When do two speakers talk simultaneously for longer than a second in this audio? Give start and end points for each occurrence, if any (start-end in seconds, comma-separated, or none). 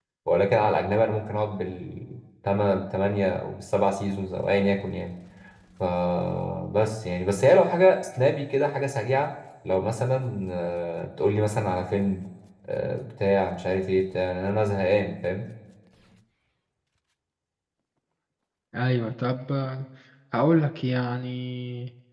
none